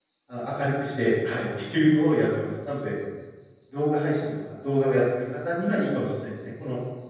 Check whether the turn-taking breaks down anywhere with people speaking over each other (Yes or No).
No